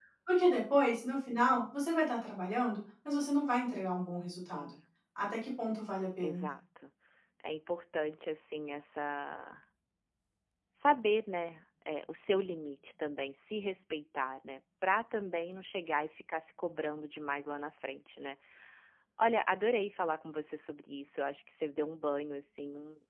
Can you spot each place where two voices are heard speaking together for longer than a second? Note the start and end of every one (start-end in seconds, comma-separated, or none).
none